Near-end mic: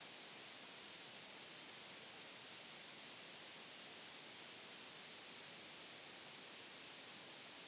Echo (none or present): none